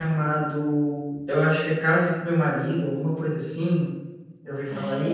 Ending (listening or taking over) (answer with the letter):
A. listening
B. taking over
B